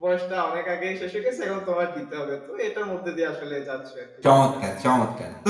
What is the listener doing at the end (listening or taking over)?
taking over